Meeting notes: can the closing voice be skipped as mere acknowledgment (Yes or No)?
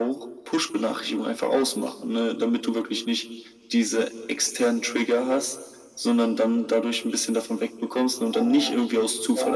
Yes